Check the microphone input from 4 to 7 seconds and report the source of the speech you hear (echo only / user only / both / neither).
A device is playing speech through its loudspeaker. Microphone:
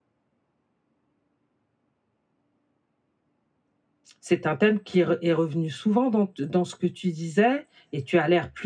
user only